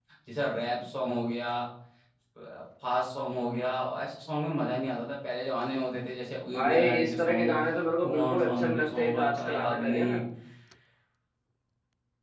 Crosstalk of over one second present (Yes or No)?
Yes